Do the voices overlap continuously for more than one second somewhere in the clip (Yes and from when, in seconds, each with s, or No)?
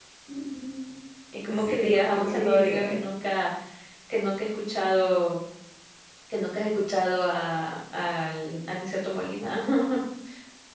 Yes, from 1.5 s